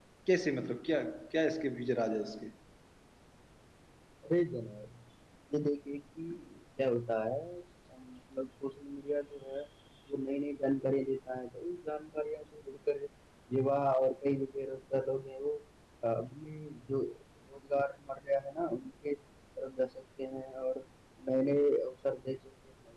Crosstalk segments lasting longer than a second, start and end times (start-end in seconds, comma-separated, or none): none